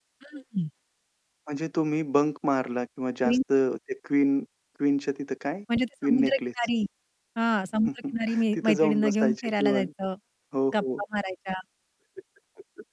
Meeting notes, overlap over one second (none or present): present